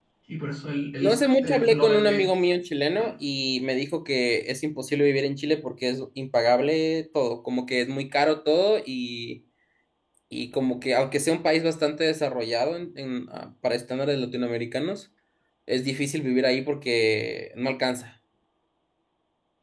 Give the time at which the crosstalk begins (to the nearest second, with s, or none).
1 s